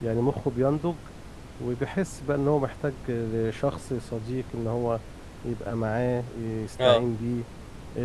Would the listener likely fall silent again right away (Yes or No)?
Yes